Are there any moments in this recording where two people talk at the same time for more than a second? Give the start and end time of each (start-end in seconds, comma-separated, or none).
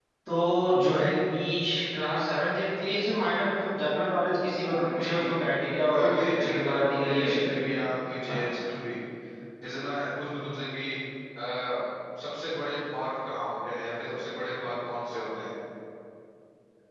5.8-7.3